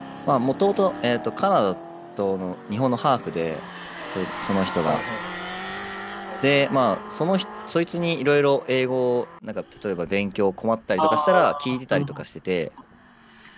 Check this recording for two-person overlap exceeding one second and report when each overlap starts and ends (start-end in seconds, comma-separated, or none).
11.0-12.2